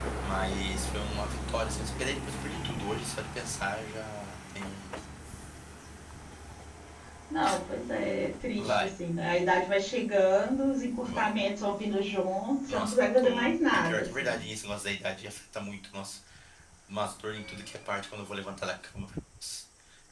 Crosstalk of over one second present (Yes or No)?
Yes